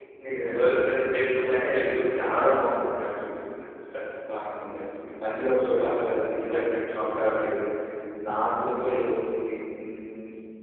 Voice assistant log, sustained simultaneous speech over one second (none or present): present